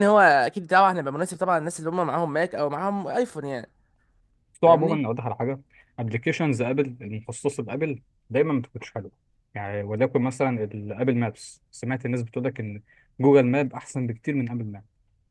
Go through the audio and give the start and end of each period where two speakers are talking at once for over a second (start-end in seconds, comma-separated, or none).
none